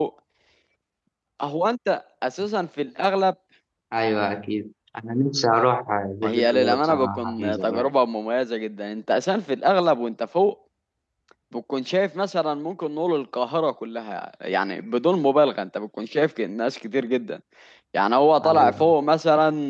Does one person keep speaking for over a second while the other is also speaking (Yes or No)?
Yes